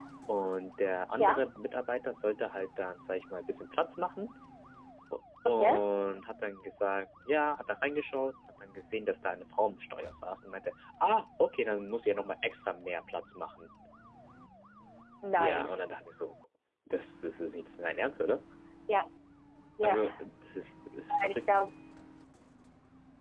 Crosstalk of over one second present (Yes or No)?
No